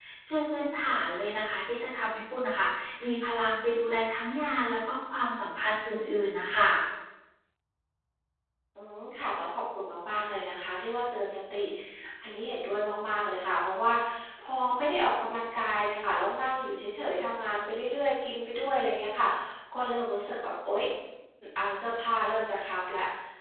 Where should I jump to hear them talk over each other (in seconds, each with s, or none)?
none